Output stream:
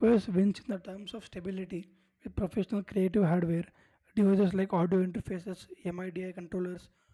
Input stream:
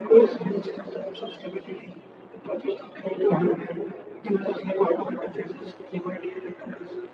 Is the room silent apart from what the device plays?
Yes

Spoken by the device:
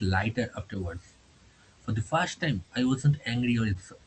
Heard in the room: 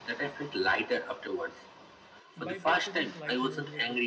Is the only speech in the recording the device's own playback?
No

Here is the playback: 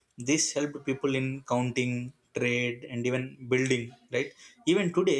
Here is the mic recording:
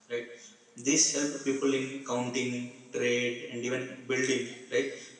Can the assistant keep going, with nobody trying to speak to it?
Yes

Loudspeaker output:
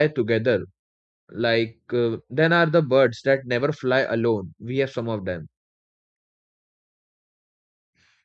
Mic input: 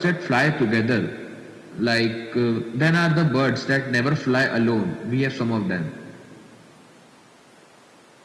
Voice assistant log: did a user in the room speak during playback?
No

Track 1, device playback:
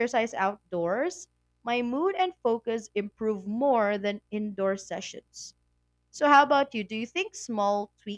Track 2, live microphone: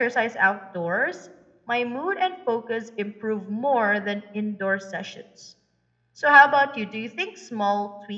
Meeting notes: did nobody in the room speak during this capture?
Yes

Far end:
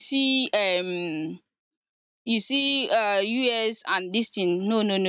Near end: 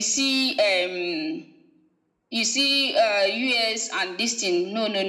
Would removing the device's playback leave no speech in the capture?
Yes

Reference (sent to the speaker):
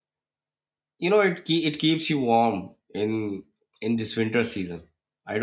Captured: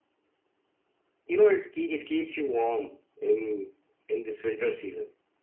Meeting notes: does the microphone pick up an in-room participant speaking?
No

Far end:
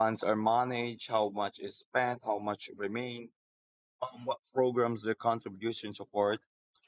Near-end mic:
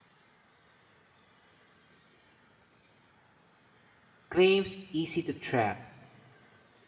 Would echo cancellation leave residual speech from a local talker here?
Yes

